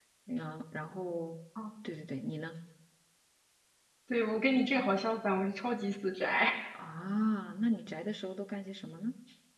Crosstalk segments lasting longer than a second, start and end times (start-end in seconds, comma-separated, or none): none